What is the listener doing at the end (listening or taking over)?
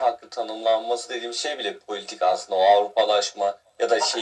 listening